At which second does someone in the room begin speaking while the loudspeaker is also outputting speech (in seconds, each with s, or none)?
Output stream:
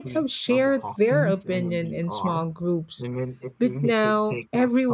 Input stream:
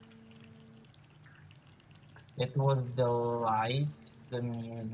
2.4 s